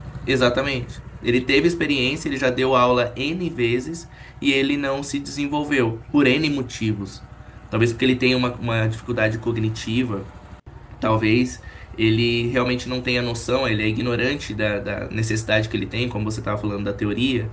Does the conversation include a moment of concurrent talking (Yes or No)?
No